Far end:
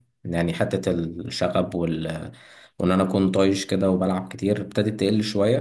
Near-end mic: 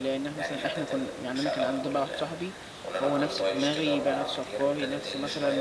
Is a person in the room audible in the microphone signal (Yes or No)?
Yes